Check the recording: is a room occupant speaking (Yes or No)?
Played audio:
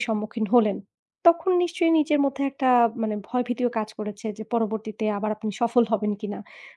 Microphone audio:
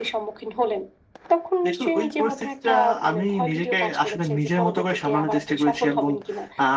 Yes